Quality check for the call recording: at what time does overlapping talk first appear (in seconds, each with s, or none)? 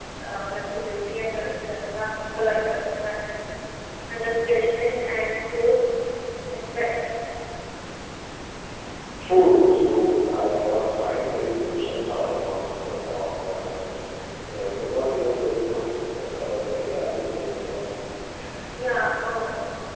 none